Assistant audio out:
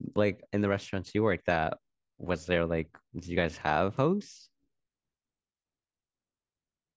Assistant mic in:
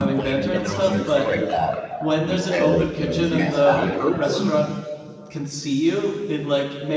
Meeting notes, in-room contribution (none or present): present